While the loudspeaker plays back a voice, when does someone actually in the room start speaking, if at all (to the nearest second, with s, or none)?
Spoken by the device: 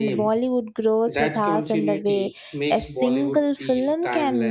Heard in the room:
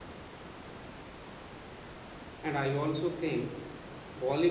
2 s